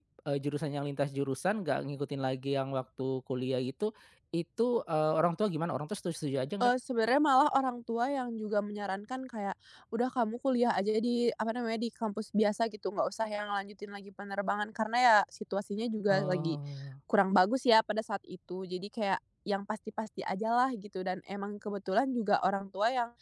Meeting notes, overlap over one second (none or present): none